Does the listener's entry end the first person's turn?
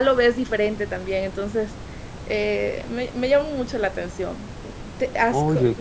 No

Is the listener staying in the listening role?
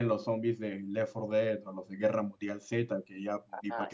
Yes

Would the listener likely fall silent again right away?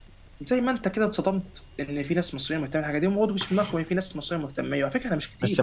No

